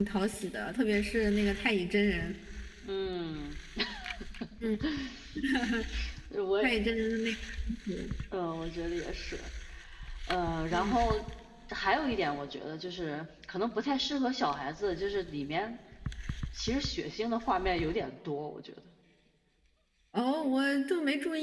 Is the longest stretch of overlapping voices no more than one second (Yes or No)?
Yes